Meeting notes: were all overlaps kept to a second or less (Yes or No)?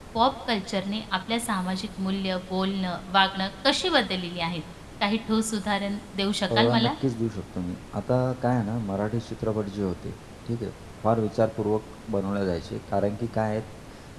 Yes